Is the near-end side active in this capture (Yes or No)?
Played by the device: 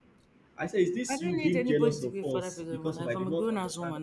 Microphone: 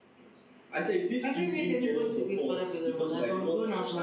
No